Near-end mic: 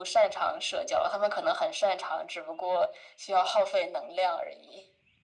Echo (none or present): present